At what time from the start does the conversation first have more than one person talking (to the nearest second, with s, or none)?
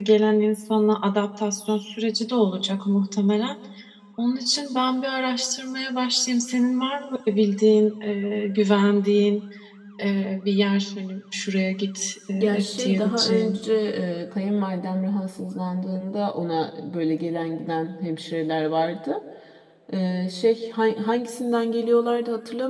12 s